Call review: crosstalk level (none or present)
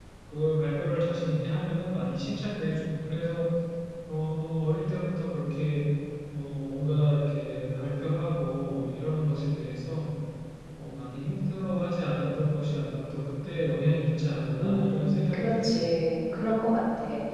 present